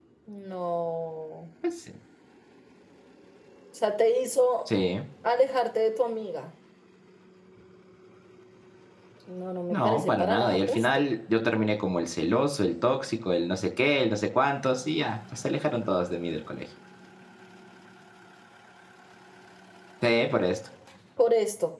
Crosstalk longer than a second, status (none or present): present